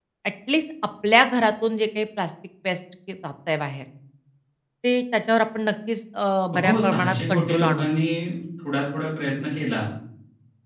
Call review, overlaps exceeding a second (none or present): present